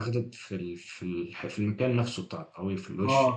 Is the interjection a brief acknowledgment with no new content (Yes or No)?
No